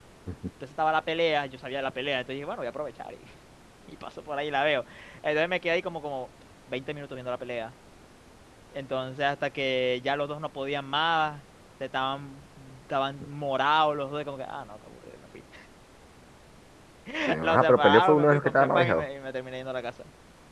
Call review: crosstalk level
present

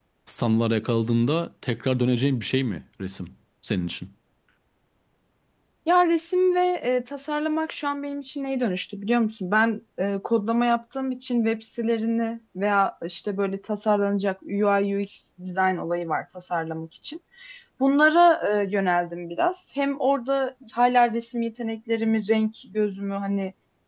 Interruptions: none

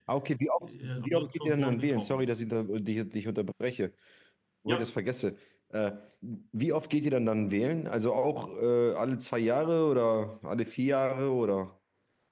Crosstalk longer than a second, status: present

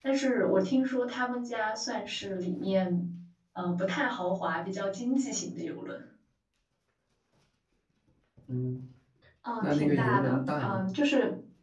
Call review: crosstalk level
present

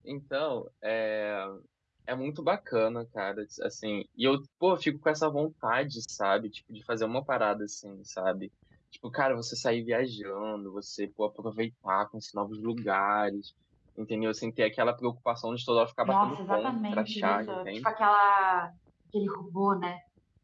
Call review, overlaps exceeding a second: present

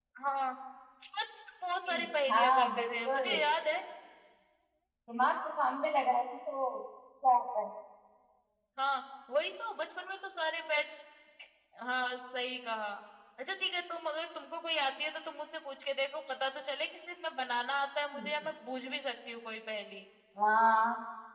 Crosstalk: present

